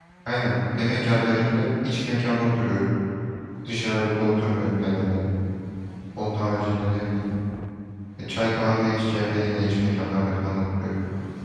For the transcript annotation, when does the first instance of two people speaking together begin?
none

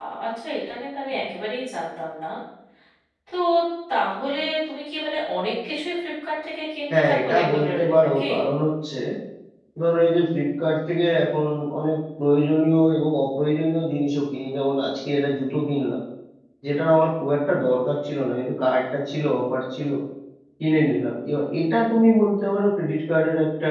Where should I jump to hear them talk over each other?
6.9 s

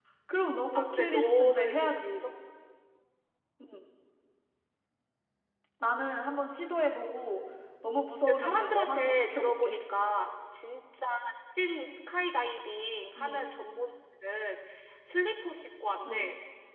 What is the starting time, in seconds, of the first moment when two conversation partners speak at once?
0.8 s

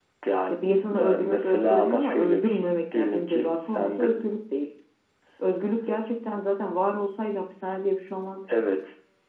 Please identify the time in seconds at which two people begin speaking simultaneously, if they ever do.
1.0 s

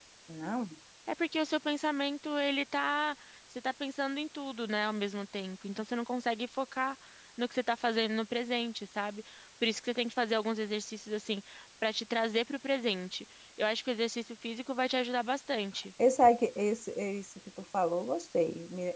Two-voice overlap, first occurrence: none

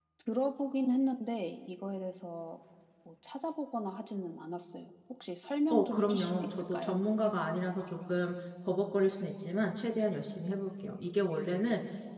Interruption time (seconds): 5.7 s

